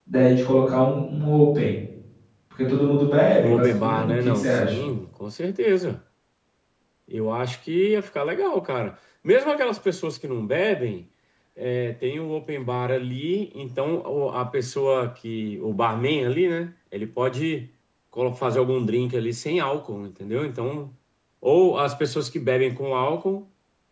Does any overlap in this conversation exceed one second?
Yes, from 3.4 s

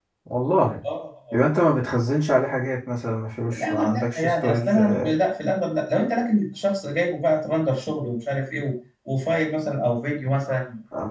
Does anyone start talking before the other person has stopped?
Yes, from 3.5 s

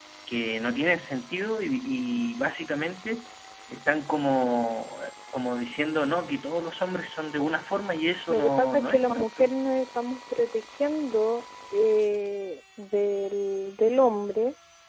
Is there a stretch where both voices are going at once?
Yes, from 8.3 s

